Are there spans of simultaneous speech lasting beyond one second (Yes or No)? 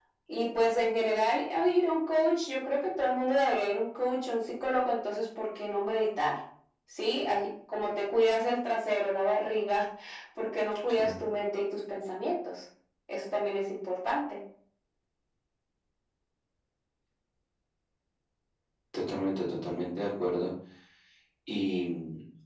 No